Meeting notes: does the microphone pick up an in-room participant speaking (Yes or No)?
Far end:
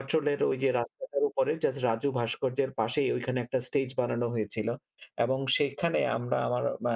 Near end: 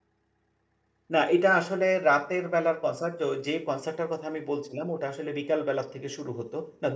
Yes